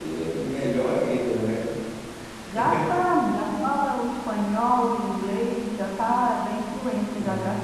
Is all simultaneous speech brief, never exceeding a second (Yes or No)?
Yes